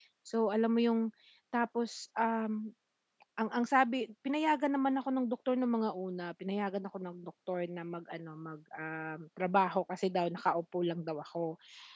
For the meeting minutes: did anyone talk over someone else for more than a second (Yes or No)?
No